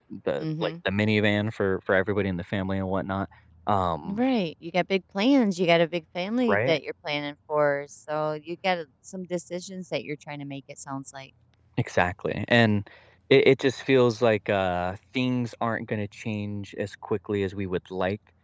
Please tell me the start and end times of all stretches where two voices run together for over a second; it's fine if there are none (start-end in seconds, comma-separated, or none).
none